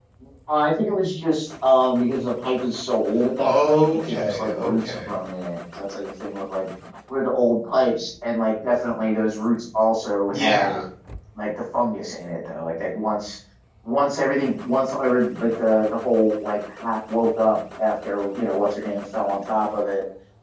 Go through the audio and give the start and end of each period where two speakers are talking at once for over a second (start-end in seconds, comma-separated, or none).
3.4-5.1